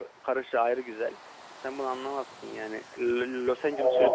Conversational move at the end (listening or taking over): taking over